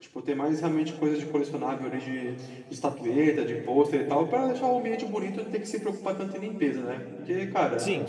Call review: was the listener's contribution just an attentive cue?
No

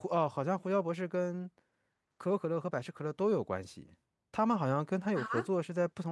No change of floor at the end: Yes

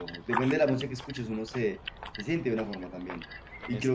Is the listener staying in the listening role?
Yes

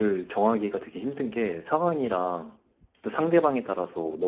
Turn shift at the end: No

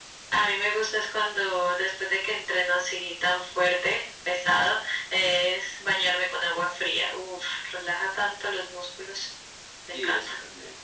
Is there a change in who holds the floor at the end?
Yes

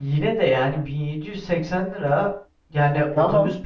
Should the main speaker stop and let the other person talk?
No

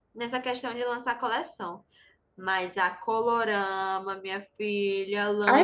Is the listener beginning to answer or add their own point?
Yes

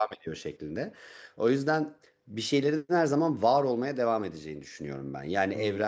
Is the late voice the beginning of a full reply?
No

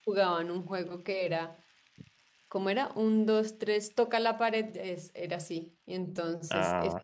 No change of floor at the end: Yes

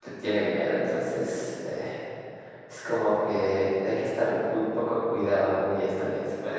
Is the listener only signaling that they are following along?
Yes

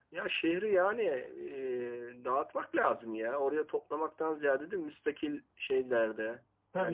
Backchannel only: No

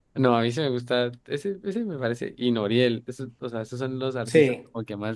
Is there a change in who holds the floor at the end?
No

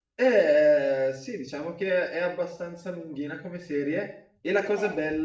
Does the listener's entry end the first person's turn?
No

